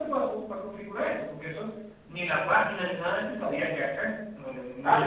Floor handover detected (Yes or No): Yes